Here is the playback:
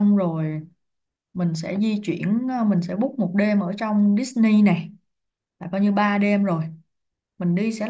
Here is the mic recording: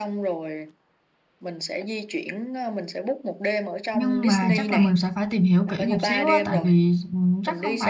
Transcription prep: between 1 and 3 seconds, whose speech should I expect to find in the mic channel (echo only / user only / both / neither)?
echo only